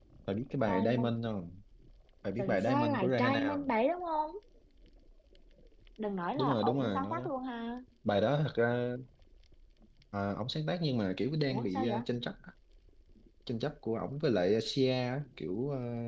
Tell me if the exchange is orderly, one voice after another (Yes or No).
No